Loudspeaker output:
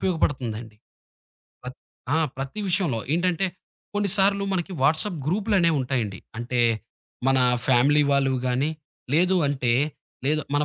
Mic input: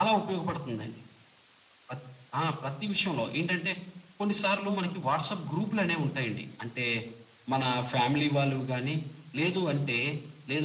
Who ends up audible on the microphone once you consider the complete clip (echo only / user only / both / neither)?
both